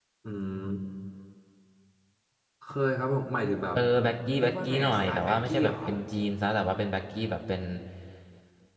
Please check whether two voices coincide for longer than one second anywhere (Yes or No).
Yes